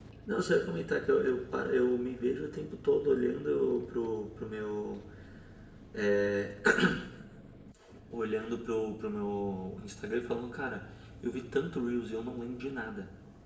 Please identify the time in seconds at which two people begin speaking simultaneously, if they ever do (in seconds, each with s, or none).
none